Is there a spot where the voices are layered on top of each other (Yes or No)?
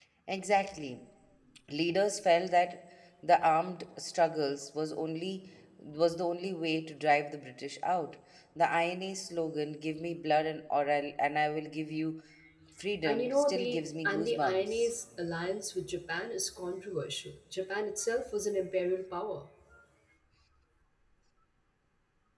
Yes